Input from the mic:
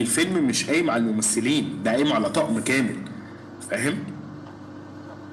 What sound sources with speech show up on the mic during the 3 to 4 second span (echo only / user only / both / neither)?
echo only